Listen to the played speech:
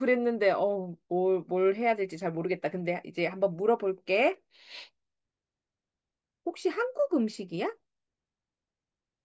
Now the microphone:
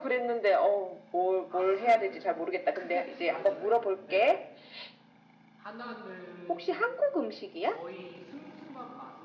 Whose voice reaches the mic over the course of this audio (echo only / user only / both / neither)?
both